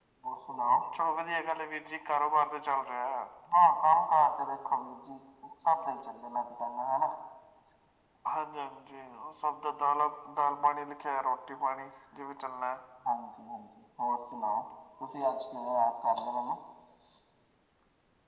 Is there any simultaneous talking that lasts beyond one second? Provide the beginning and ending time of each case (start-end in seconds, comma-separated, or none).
none